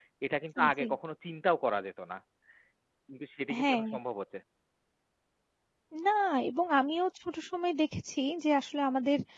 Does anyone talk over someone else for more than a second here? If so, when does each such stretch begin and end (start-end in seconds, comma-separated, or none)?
none